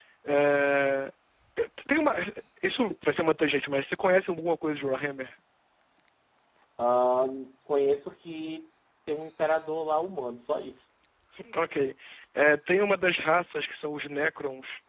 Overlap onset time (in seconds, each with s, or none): none